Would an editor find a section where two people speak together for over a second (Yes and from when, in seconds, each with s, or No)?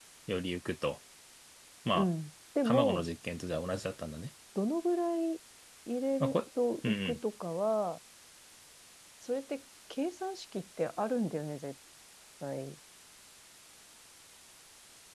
No